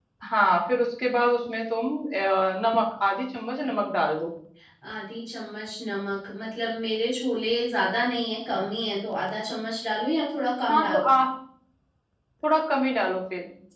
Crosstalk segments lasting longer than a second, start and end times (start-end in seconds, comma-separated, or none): none